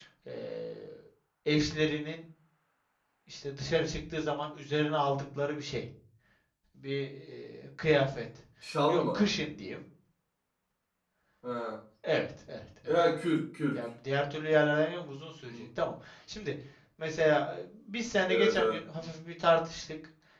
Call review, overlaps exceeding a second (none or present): none